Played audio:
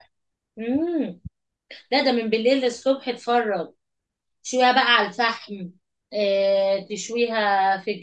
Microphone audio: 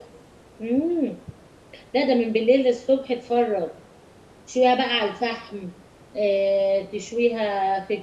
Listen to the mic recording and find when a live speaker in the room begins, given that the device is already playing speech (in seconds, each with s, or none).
none